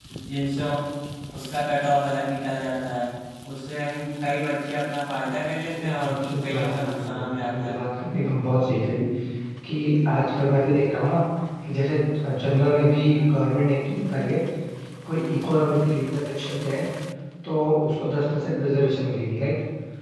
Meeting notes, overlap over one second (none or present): present